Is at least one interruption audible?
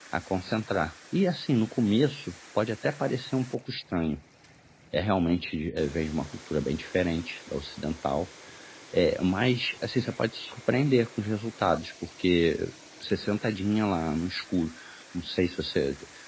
No

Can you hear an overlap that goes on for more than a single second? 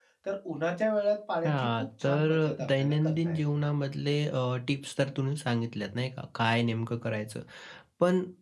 Yes, from 1.4 s

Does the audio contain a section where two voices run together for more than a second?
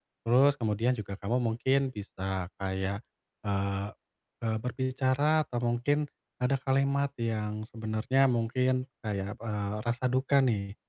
No

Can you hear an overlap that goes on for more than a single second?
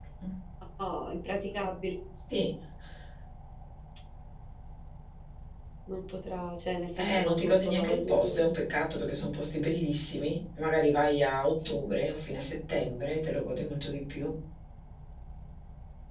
Yes, from 7.0 s

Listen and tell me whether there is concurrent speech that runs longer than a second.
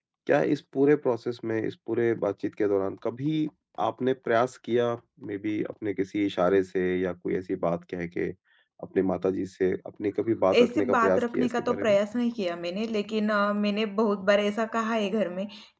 Yes, from 10.5 s

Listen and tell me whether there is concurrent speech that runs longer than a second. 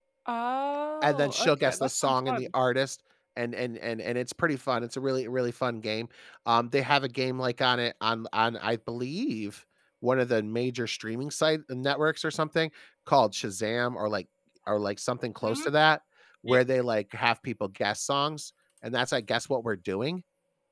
Yes, from 1.0 s

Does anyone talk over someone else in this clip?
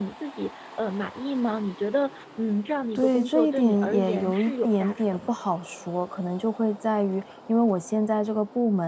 Yes, from 3.0 s

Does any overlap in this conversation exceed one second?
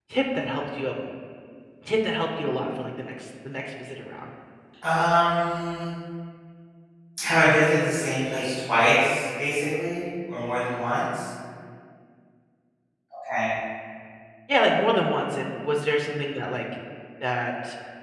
No

